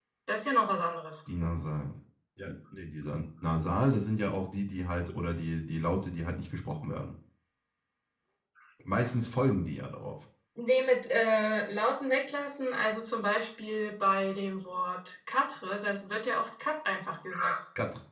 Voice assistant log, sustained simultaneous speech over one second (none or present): none